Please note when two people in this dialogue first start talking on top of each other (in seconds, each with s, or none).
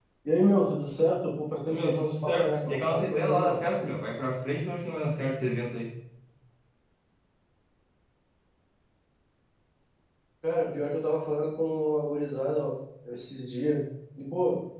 1.6 s